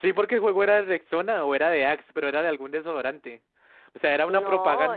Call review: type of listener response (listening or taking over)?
taking over